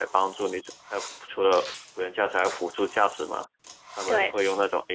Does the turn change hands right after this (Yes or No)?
No